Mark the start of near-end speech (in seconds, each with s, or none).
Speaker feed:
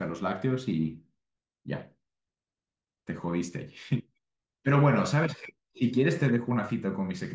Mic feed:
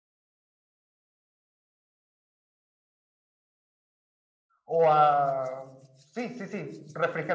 4.6 s